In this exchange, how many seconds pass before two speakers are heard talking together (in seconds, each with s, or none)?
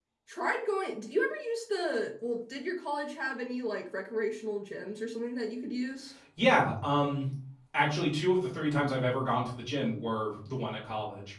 none